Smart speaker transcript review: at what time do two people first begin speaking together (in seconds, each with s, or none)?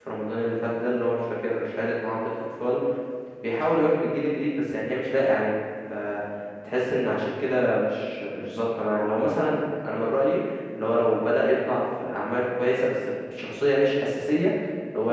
none